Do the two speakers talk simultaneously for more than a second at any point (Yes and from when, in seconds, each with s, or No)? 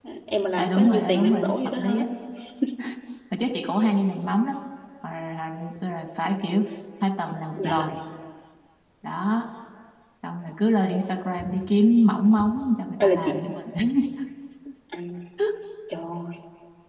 Yes, from 0.6 s